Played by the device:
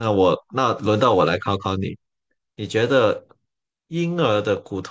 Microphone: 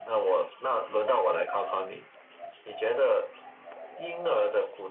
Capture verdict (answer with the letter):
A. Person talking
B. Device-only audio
B